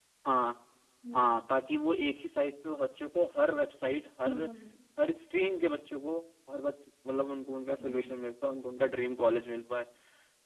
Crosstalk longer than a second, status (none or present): none